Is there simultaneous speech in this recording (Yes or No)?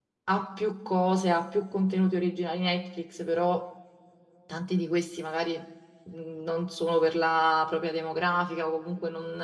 No